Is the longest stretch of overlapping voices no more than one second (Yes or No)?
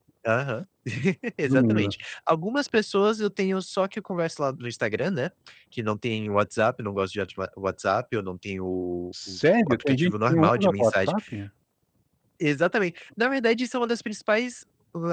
No